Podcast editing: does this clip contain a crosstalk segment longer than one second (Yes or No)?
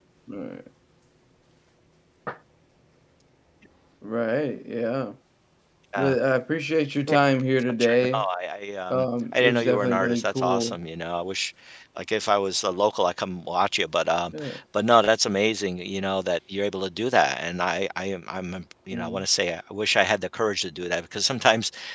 Yes